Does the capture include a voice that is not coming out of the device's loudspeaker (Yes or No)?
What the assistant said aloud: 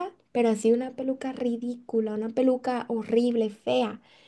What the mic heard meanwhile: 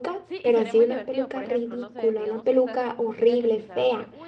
Yes